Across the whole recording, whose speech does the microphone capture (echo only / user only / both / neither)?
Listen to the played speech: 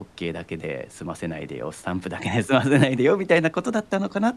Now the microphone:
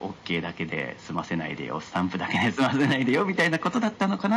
echo only